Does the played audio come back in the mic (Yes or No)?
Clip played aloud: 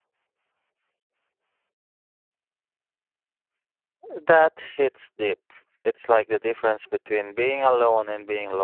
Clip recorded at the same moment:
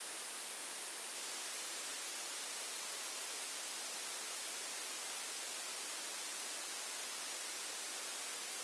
No